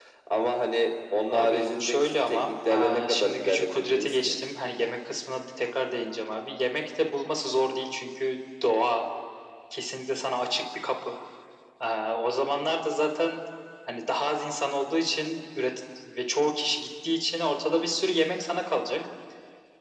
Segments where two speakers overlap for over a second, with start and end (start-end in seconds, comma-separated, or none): 1.3-4.3